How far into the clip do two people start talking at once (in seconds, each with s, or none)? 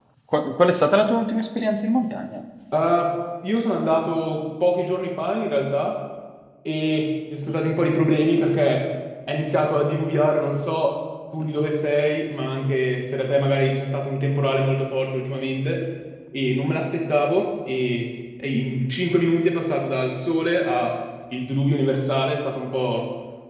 none